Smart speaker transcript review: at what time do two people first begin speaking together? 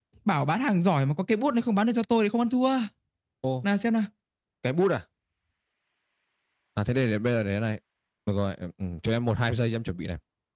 none

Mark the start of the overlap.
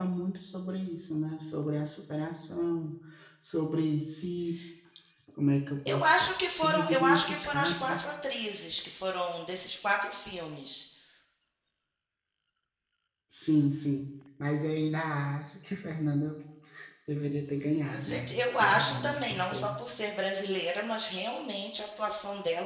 5.8 s

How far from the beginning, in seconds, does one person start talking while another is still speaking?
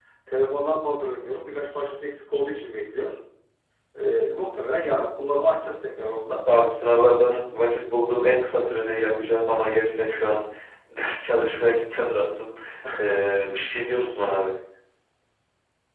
none

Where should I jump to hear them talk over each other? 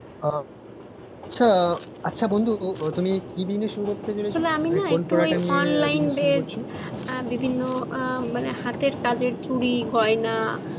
4.3 s

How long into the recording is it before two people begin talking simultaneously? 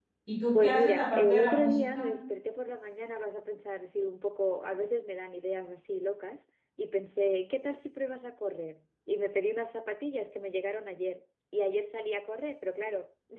0.6 s

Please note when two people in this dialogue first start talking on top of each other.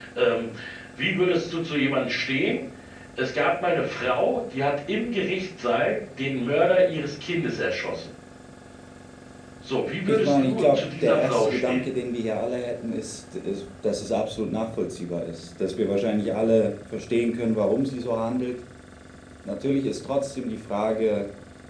10.1 s

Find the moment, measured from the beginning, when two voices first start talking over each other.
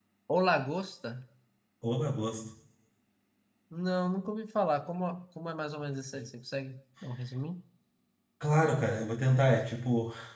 none

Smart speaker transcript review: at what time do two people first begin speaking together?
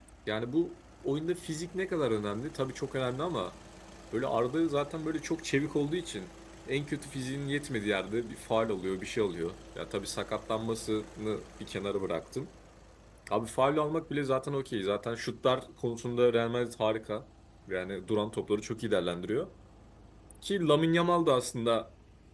none

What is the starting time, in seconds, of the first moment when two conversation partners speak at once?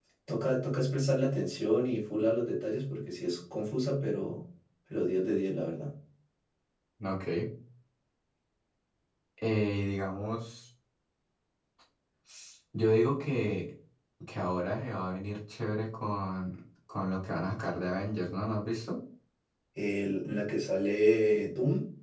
none

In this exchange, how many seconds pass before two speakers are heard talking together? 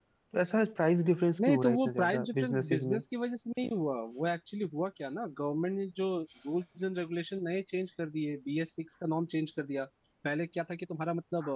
1.4 s

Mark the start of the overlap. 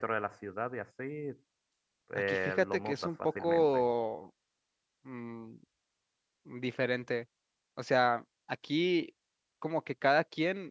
2.3 s

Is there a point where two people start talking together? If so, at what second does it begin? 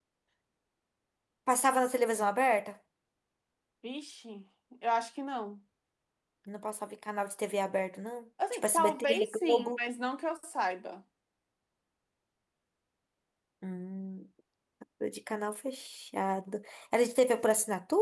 8.4 s

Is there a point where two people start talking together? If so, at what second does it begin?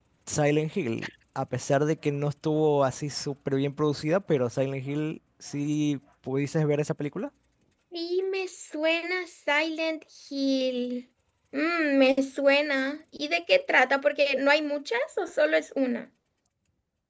none

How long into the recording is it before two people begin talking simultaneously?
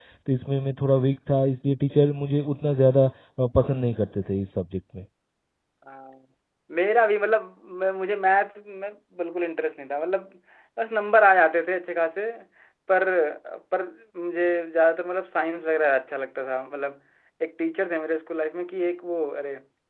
none

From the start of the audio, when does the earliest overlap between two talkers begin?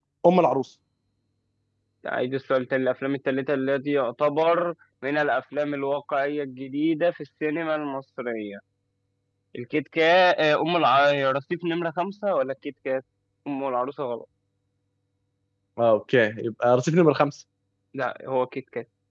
none

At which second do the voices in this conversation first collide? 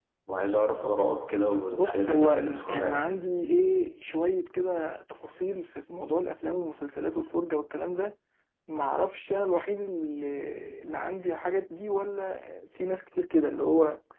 1.7 s

